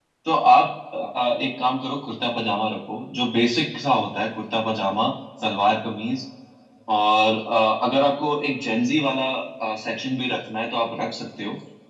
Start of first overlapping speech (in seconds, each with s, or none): none